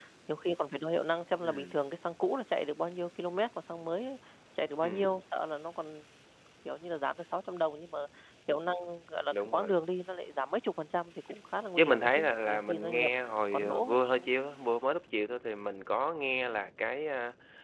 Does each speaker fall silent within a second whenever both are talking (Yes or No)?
No